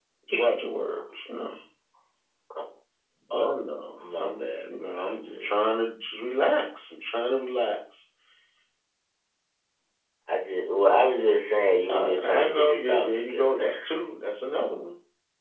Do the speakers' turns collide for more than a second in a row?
Yes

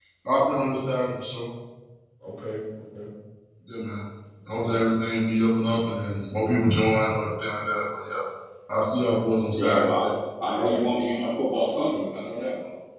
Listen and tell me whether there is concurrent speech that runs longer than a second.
No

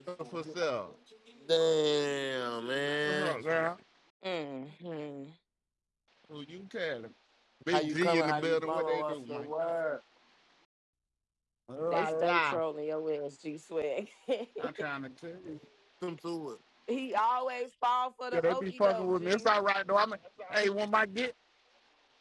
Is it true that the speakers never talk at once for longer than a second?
No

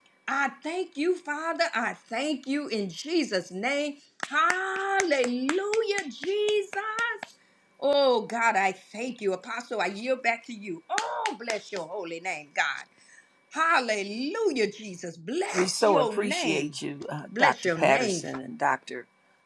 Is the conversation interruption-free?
No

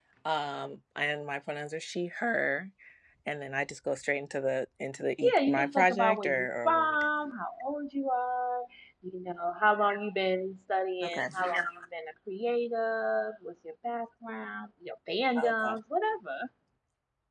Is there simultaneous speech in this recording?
Yes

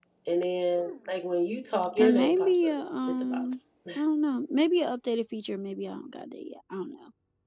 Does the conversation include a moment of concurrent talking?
Yes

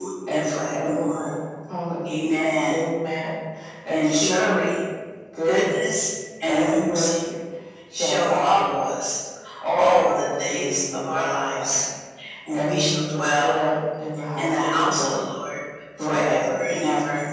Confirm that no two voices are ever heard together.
No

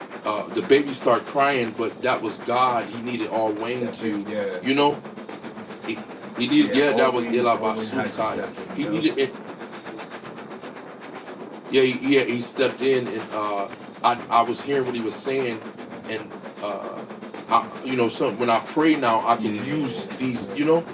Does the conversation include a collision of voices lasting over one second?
Yes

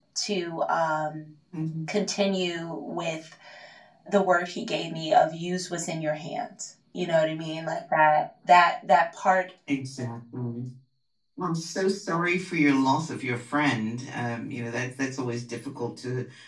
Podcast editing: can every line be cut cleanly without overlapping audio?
Yes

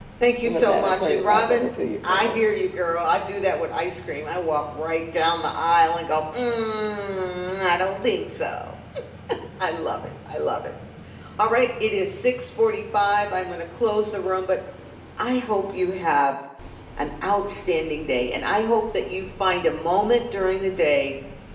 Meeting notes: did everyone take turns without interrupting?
No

